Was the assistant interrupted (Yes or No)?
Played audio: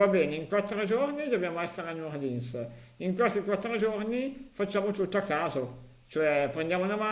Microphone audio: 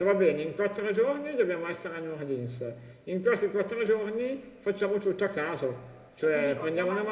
Yes